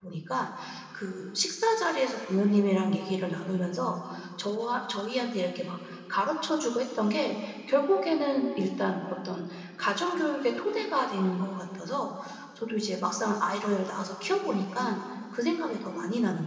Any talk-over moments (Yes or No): No